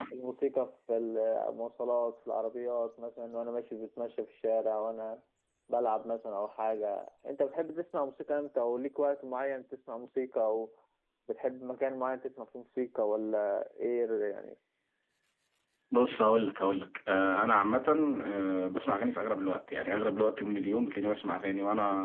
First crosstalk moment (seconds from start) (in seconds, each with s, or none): none